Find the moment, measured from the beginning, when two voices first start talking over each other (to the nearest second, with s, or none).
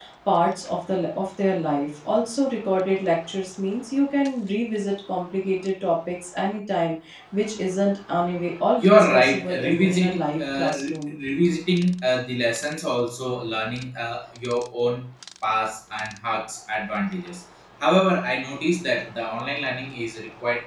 9 s